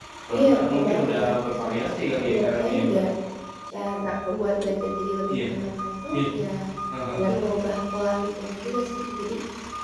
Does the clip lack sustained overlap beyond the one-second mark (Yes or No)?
No